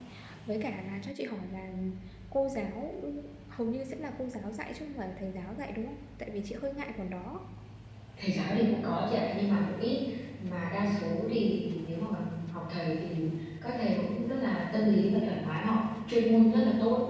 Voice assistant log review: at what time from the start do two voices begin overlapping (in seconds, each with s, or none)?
none